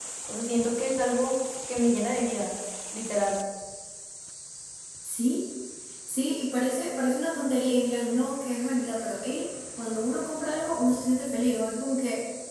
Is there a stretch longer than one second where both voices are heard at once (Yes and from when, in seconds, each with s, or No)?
No